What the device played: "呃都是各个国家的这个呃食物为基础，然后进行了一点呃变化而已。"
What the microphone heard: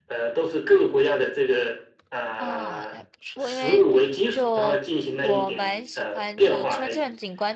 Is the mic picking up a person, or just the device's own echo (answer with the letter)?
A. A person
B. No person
A